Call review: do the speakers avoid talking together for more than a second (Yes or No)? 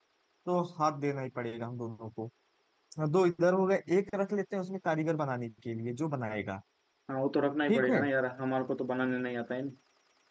Yes